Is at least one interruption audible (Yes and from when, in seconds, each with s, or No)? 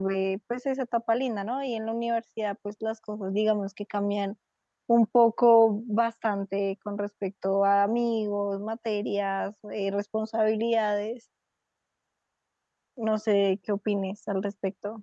No